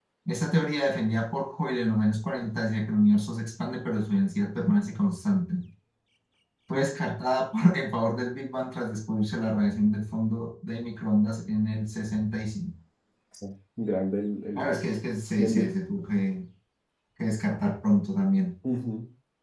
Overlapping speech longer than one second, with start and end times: none

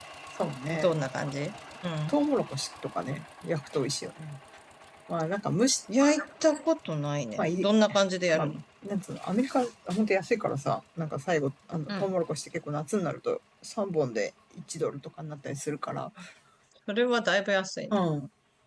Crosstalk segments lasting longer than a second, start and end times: none

